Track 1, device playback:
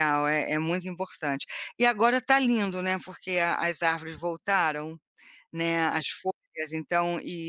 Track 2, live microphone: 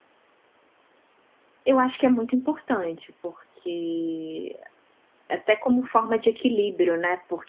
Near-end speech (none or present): present